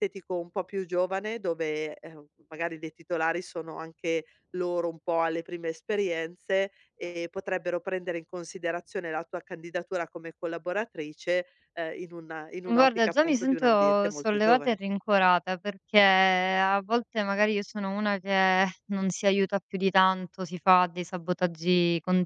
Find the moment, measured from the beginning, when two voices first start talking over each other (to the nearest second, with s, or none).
13 s